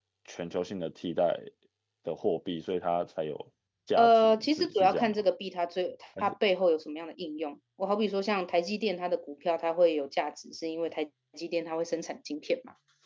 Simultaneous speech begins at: 4.0 s

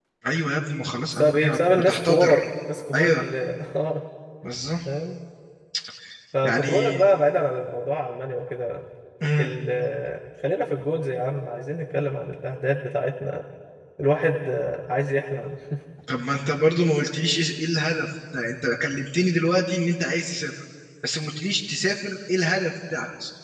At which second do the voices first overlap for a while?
1.1 s

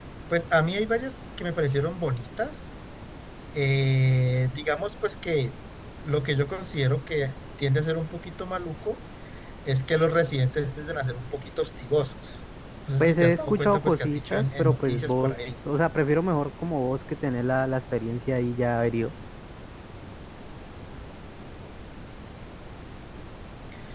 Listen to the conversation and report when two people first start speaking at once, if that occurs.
13.0 s

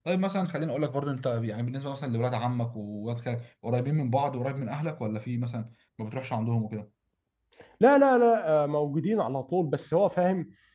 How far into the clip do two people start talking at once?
none

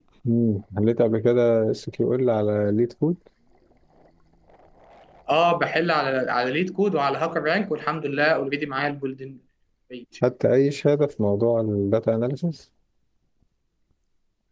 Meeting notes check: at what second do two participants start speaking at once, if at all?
none

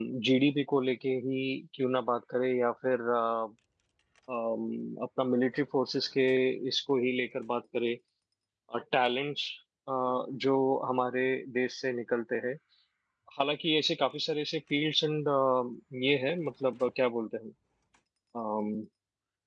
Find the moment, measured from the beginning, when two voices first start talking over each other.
none

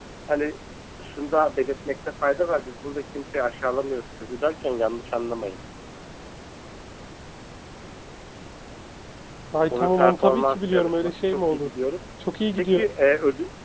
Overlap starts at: 9.8 s

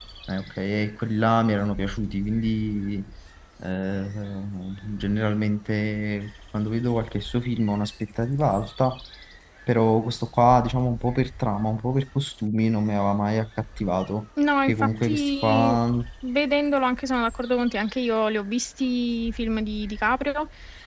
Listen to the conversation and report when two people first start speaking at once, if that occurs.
14.4 s

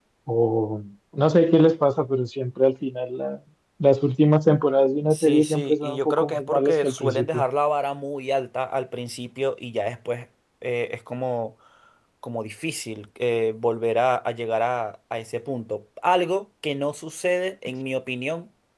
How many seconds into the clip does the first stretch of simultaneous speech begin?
5.1 s

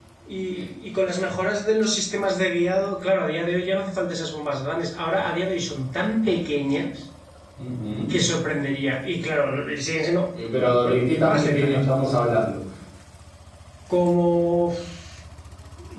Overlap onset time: 10.6 s

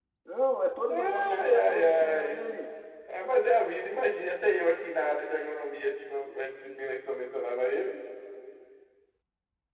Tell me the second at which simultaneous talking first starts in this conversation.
0.9 s

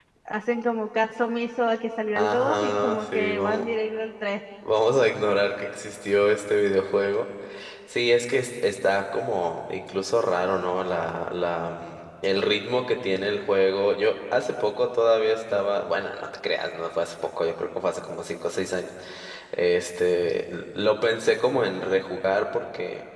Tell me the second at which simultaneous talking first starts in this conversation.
2.1 s

